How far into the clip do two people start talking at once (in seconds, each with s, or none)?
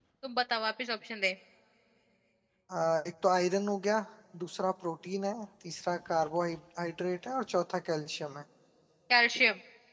none